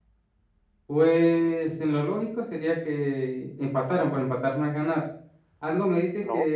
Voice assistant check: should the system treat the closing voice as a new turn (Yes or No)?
No